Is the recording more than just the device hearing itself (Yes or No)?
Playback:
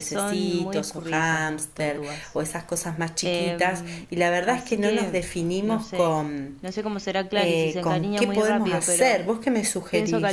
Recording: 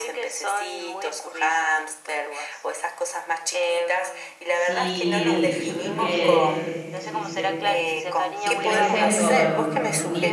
Yes